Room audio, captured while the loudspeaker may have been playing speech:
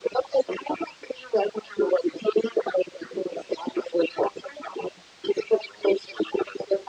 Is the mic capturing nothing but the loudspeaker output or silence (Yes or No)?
Yes